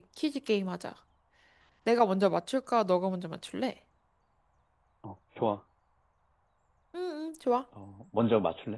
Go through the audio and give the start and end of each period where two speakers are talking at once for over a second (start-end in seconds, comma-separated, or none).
none